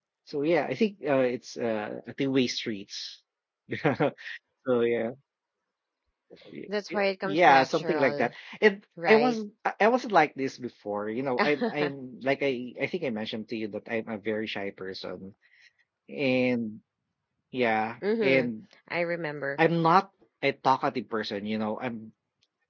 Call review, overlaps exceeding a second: present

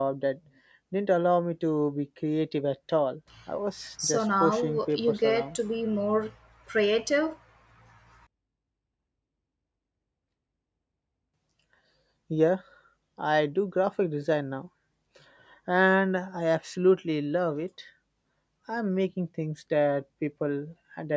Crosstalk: present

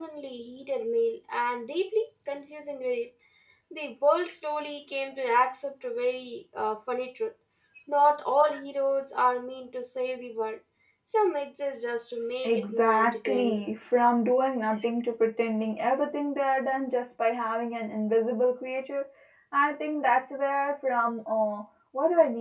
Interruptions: present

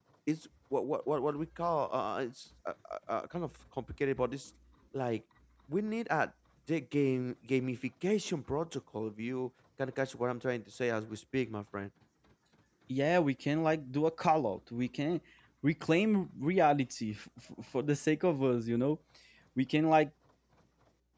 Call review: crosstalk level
none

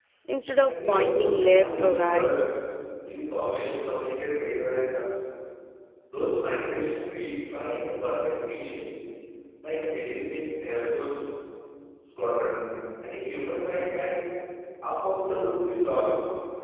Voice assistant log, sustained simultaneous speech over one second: present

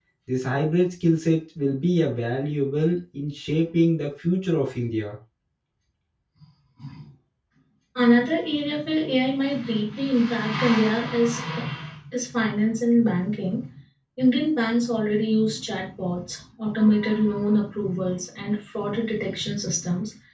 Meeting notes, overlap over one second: none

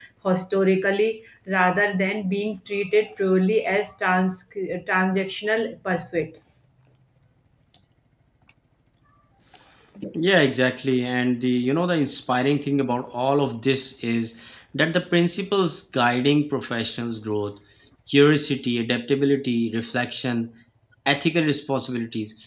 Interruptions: none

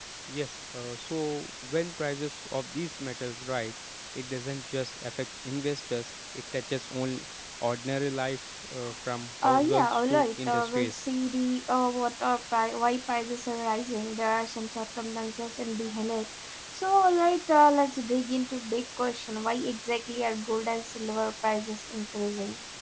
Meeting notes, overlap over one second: present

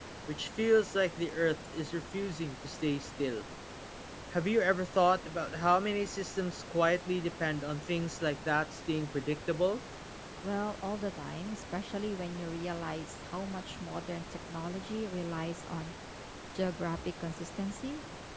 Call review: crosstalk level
none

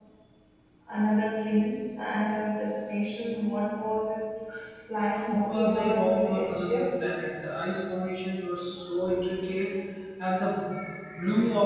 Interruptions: present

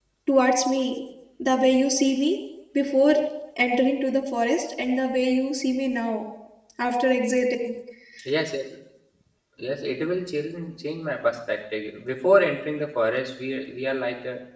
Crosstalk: none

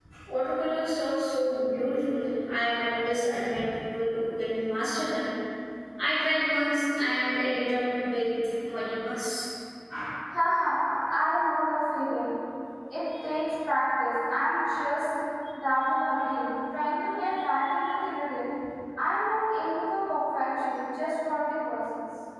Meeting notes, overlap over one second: none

